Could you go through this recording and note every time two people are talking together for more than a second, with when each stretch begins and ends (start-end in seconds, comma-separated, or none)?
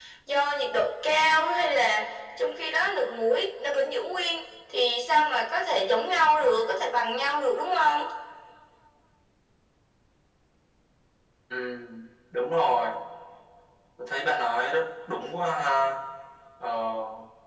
none